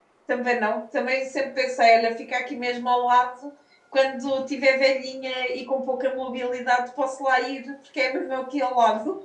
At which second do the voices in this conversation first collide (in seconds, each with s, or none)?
none